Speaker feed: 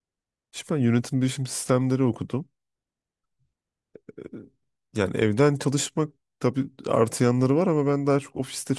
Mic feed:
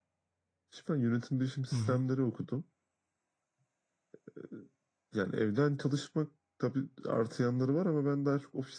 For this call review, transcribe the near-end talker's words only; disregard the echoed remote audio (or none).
Hı hı.